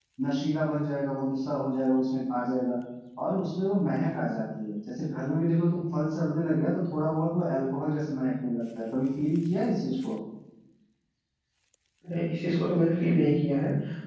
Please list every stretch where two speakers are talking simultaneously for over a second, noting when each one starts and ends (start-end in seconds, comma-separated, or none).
none